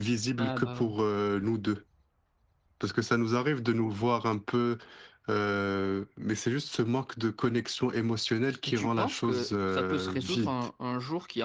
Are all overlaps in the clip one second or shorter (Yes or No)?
No